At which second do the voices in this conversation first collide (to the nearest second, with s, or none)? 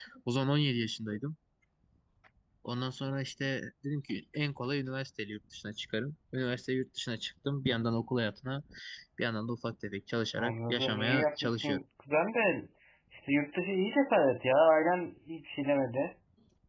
10 s